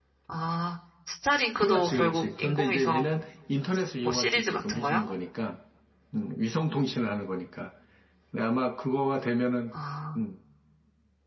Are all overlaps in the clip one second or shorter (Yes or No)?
No